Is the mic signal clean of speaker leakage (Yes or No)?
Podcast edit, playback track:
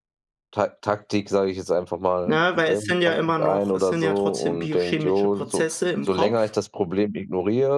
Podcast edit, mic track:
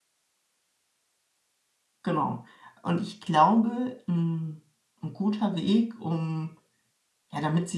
Yes